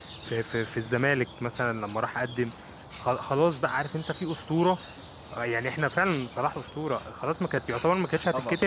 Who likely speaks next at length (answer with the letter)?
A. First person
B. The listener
A